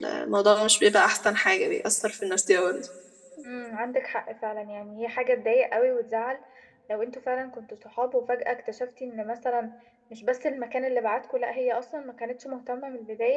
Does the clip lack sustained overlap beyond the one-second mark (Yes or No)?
Yes